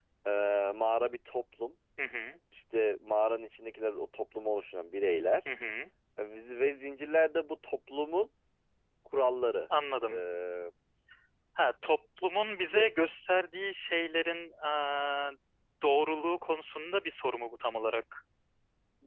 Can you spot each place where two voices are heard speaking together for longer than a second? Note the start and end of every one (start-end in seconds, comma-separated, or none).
none